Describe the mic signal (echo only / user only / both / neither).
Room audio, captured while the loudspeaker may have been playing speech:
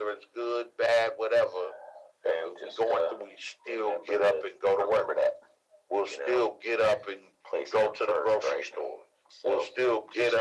echo only